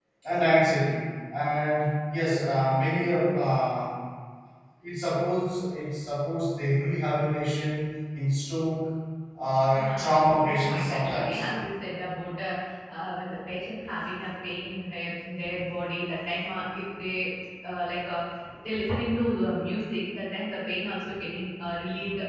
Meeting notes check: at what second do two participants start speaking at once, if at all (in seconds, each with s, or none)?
9.7 s